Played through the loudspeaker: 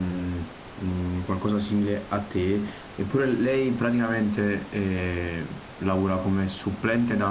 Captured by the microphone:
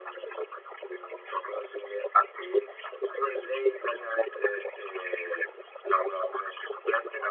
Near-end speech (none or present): none